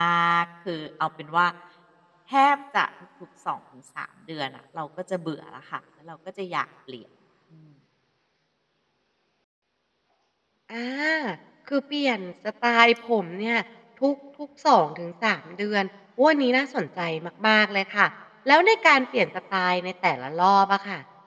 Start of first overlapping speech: none

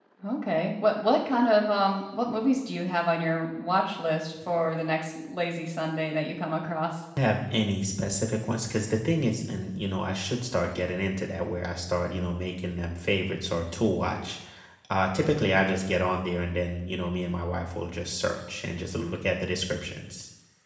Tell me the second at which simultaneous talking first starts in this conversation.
none

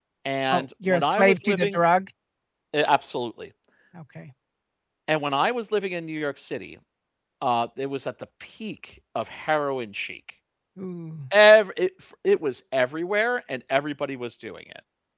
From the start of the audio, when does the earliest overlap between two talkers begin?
0.5 s

